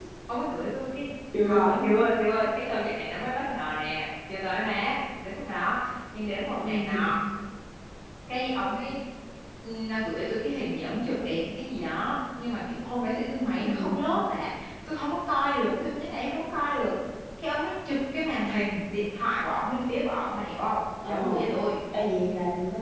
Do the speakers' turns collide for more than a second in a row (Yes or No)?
No